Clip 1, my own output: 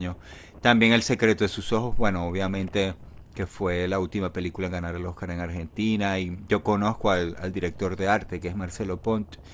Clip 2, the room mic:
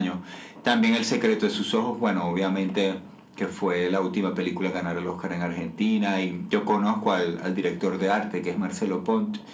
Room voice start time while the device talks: none

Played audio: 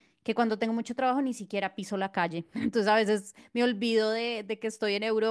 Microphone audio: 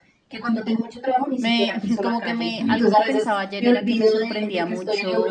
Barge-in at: 1.4 s

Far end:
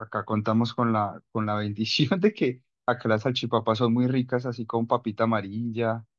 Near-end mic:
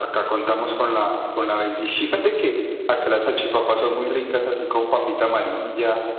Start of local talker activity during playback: none

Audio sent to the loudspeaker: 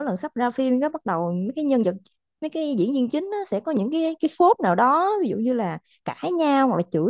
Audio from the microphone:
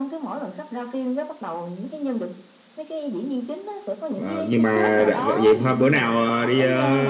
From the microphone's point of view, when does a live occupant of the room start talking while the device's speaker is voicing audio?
4.1 s

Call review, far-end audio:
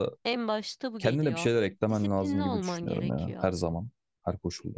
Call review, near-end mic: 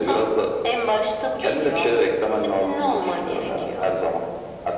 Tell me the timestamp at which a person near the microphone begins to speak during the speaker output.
none

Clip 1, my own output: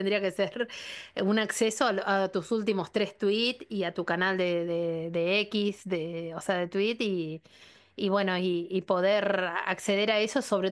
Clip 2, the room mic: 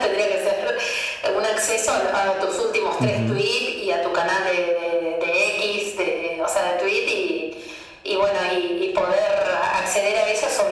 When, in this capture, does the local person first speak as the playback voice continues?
3.0 s

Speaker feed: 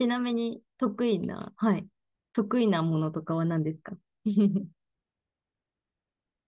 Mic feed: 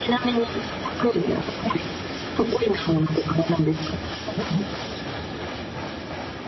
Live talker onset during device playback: none

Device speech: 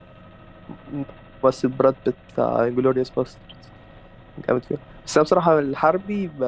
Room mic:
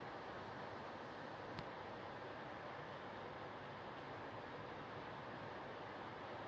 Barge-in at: none

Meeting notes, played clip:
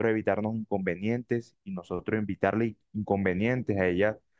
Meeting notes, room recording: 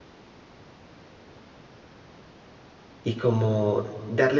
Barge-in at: 3.0 s

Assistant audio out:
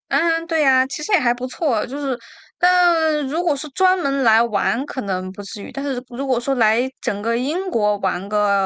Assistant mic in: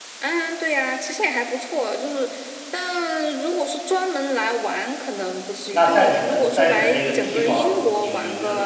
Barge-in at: 5.7 s

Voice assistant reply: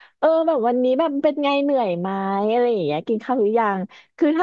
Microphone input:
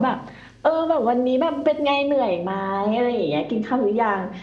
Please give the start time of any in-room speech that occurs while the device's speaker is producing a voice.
none

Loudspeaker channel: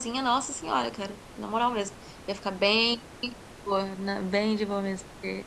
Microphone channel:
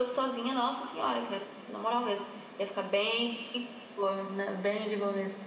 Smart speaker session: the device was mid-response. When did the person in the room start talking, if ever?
none

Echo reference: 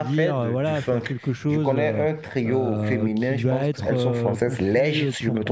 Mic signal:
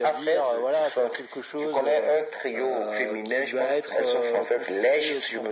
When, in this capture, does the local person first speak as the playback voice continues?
none

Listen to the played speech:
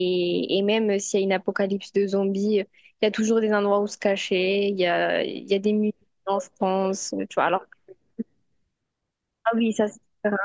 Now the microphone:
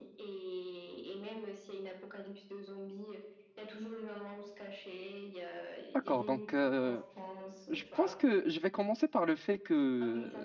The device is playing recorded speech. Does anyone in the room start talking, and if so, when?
5.9 s

